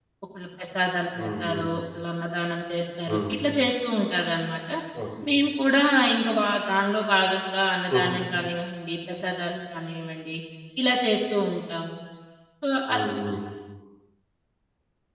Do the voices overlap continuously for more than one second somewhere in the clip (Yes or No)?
No